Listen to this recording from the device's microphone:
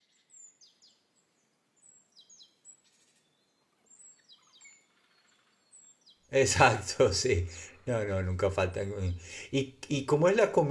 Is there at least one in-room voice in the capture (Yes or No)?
Yes